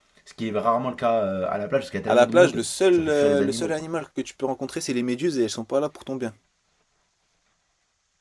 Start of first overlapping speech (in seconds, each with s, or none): 2.1 s